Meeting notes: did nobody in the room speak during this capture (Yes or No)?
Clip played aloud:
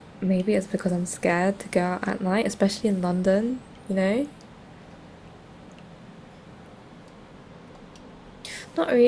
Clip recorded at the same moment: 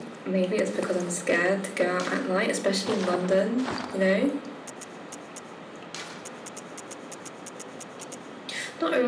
Yes